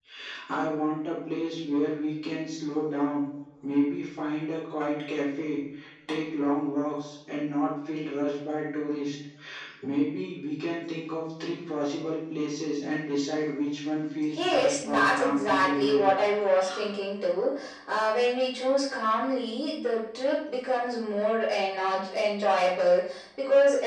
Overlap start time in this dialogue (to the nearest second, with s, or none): 14 s